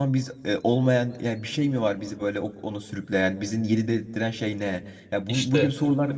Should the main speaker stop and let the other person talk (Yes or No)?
No